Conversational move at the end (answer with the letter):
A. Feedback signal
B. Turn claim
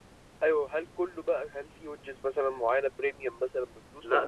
B